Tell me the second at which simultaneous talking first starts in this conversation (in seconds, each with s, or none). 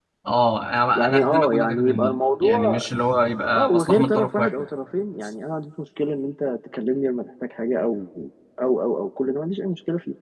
0.9 s